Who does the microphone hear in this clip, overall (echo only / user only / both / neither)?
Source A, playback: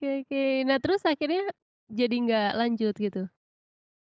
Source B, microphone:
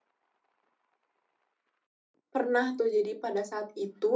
user only